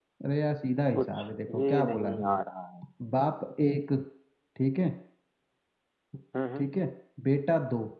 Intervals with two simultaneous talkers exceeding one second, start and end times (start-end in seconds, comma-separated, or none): 1.0-2.4